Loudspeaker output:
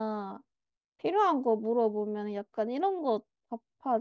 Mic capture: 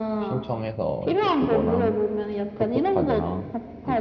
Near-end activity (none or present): present